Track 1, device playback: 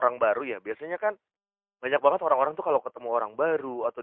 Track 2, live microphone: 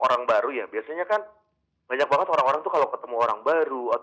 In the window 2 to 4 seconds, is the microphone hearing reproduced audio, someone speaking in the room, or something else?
echo only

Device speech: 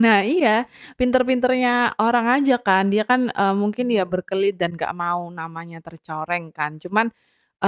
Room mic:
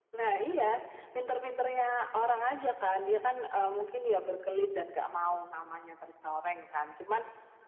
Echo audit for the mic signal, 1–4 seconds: echo only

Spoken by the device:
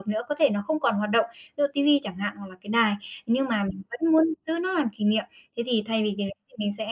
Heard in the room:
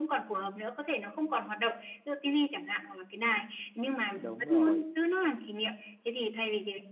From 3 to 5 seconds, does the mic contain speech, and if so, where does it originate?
both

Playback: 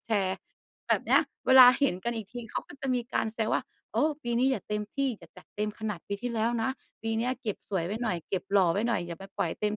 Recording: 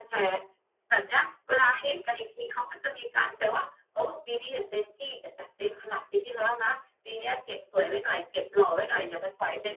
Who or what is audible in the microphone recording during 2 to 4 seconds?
echo only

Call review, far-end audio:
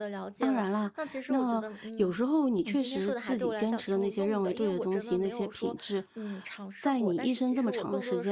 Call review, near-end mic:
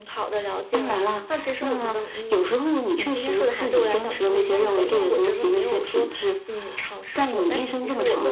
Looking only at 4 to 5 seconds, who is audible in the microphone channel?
echo only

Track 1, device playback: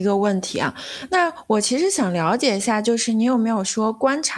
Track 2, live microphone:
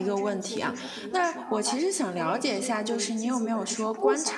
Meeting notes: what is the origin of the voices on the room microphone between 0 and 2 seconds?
both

